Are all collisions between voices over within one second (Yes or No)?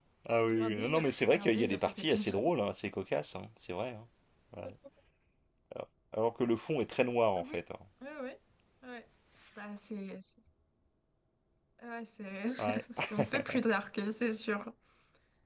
No